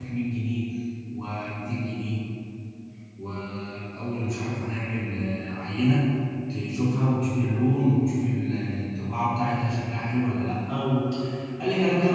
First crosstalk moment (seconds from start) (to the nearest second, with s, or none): none